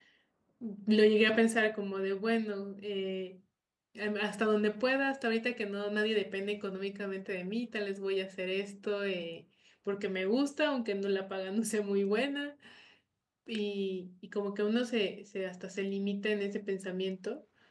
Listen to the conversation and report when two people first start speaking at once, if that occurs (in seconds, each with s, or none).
none